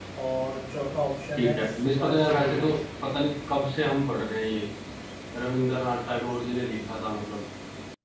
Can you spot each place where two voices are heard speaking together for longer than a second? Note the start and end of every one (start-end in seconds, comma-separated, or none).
1.4-2.7